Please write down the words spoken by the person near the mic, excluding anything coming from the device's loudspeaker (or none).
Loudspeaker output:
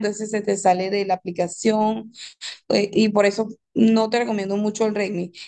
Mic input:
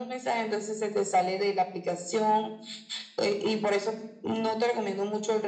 none